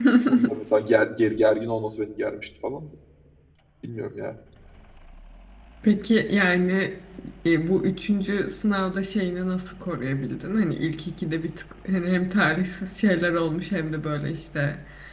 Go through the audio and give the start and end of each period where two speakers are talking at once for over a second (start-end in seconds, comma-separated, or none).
none